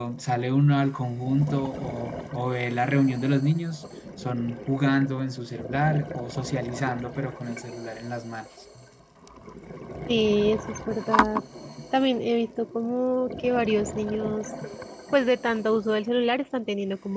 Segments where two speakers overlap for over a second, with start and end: none

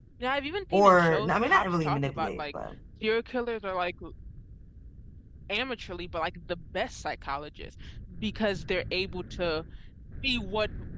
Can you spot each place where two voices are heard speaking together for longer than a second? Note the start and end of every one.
0.7-2.4

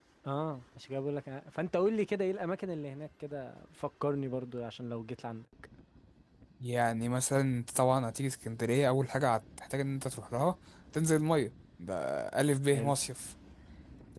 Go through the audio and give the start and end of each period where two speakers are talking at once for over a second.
none

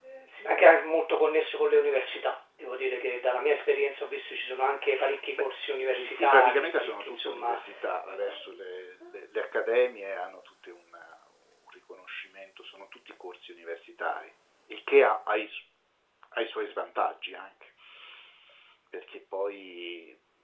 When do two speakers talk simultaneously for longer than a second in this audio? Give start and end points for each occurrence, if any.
6.0-7.6

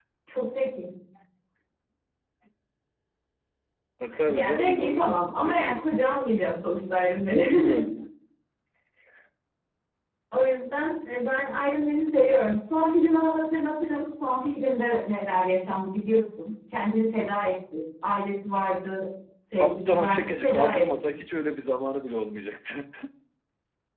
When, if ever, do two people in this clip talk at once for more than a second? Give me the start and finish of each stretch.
4.3-5.8, 19.6-20.9

